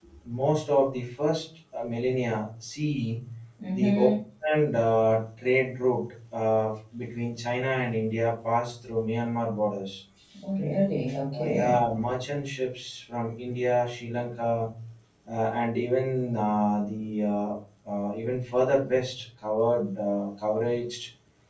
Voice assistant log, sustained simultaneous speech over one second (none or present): none